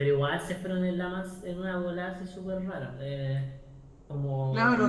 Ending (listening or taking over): taking over